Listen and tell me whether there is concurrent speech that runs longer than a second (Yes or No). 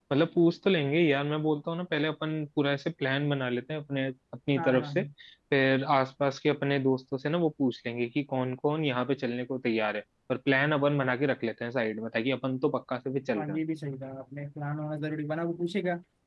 No